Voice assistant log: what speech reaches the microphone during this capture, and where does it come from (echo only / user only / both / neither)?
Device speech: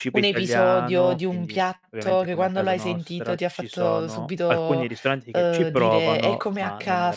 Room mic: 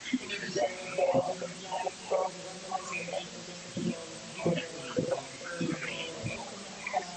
echo only